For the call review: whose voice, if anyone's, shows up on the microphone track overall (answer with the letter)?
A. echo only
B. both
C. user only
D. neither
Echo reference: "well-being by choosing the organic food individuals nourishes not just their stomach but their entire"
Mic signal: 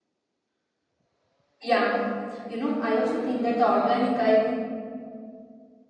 C